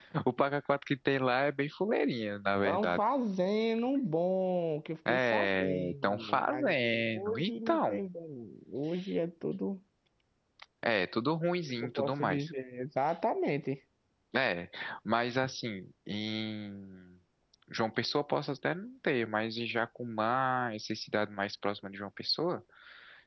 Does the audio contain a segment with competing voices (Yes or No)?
Yes